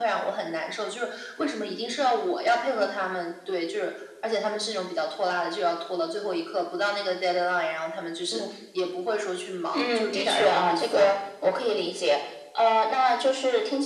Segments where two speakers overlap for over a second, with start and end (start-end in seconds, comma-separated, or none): 9.7-11.1